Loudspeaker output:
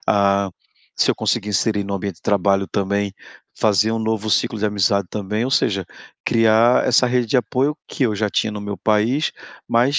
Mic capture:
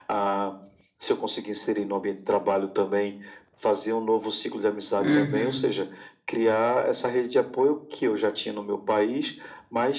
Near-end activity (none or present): present